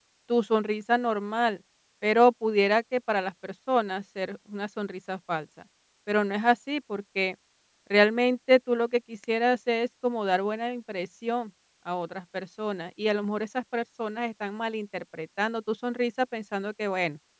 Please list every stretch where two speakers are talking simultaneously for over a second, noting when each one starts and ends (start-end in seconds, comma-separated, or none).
none